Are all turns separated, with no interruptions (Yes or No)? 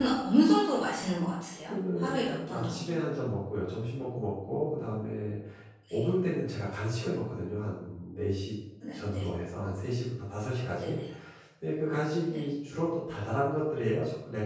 No